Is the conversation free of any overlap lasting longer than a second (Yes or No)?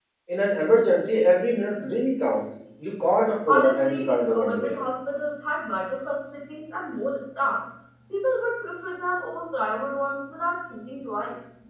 No